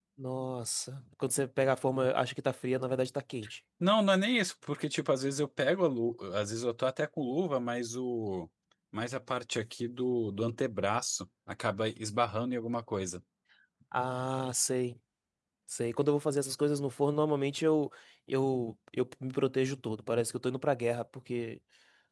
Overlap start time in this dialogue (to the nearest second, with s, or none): none